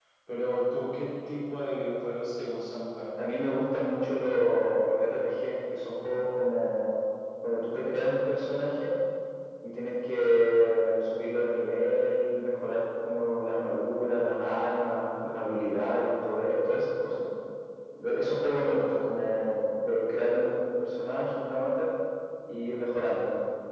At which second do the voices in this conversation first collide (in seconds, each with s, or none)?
none